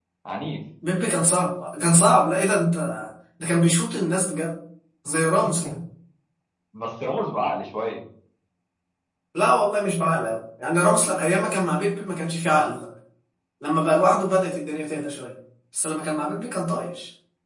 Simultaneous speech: No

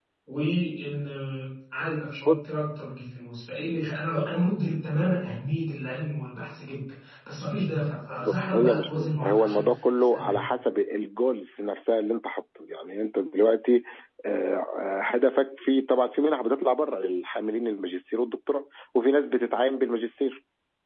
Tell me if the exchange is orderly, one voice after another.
No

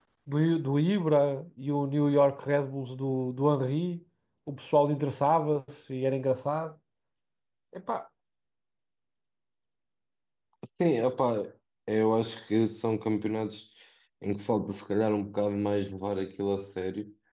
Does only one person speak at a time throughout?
Yes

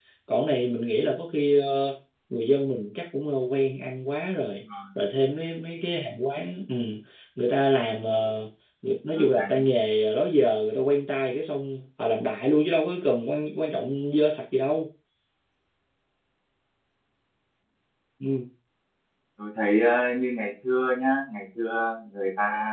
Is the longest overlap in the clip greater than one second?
No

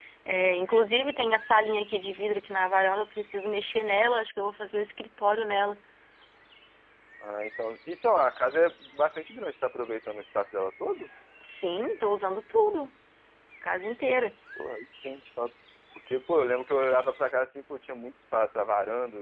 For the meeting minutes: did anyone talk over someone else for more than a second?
No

